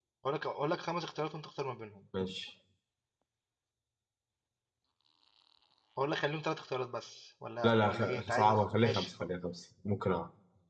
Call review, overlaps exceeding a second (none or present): present